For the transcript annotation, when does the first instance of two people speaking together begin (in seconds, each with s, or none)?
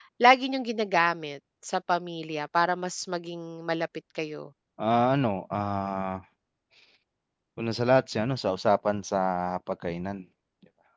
none